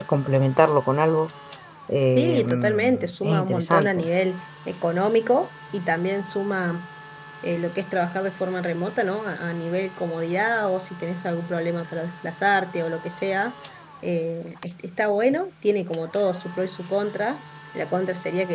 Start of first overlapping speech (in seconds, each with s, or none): 2.1 s